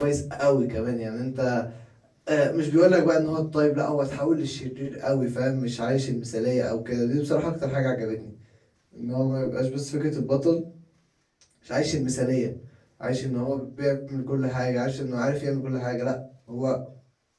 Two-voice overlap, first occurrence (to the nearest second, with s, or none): none